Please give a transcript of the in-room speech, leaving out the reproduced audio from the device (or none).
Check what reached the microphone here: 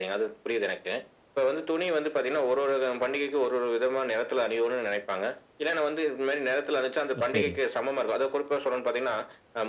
ஓ! சரிங்க.